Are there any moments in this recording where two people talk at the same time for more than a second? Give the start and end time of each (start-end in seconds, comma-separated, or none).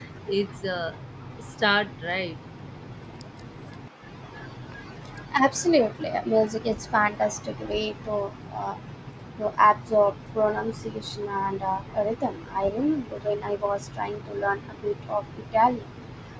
none